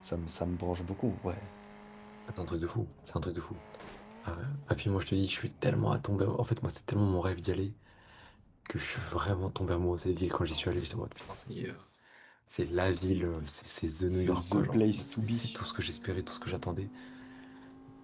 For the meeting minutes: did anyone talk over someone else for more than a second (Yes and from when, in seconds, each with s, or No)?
Yes, from 14.1 s